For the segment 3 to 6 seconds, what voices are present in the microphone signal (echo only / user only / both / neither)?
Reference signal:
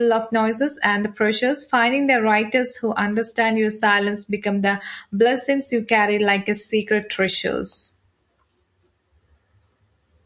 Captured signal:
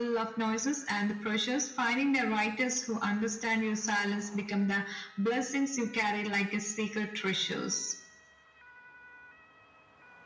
echo only